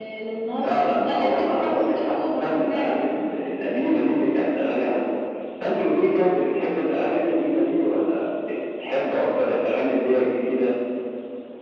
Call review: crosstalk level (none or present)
present